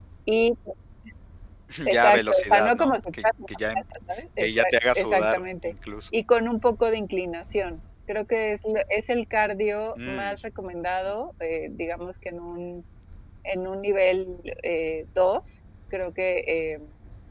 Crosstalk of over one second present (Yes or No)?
Yes